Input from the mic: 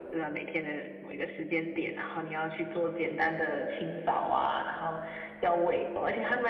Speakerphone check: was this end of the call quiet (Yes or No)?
Yes